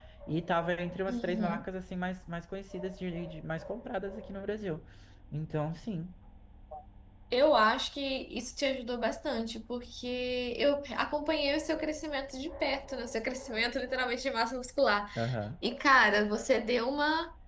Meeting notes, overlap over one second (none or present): none